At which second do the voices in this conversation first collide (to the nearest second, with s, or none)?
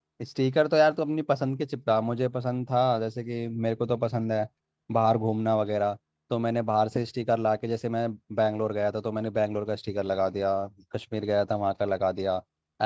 none